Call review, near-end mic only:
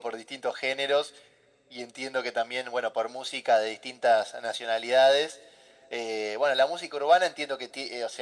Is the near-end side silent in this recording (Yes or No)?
Yes